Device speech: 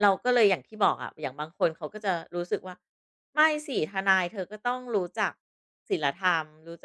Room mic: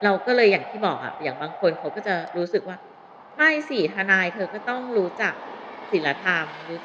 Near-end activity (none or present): none